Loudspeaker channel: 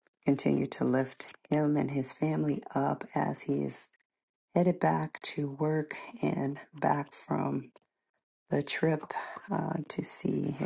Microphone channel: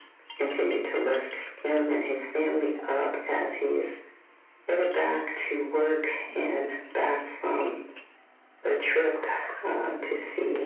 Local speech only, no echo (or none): none